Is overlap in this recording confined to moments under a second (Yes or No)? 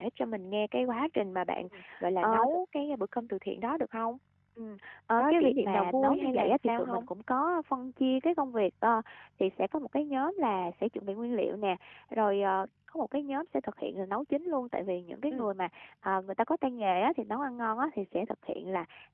No